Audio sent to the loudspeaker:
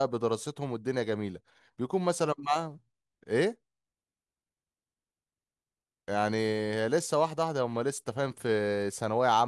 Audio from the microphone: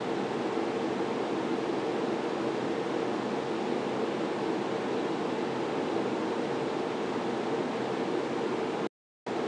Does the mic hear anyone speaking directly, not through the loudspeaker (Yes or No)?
No